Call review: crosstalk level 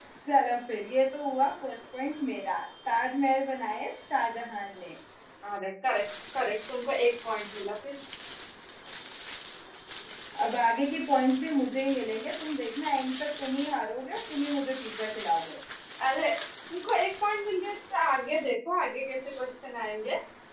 none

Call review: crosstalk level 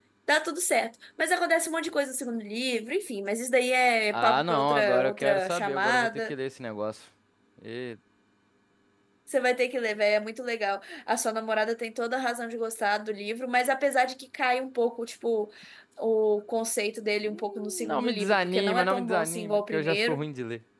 present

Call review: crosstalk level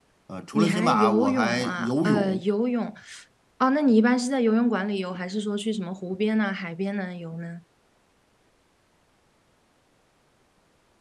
present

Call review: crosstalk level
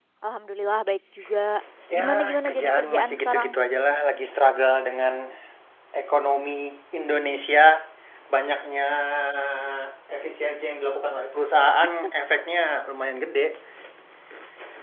present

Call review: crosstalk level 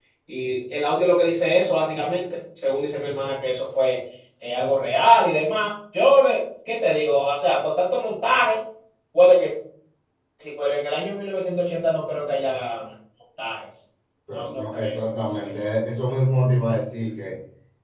present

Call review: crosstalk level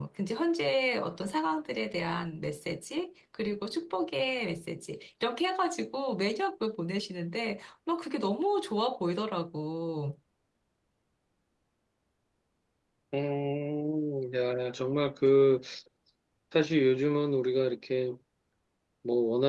none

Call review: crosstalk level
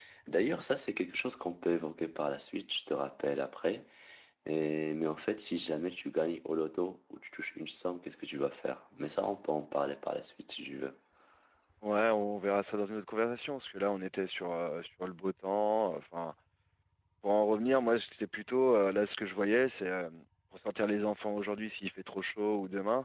none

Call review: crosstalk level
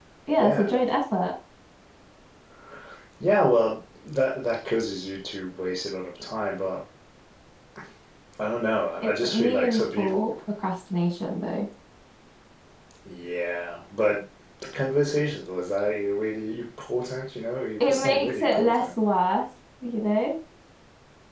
present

